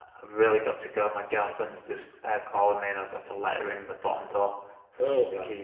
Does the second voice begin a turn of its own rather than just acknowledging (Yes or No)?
Yes